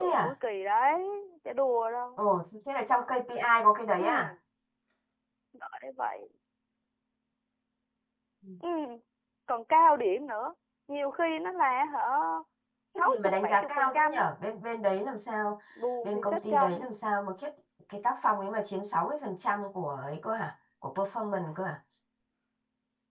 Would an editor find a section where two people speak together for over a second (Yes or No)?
Yes